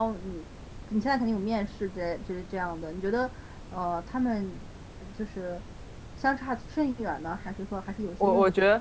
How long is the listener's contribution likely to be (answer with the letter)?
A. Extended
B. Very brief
A